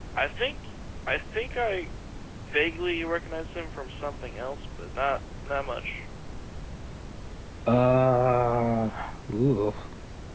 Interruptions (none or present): none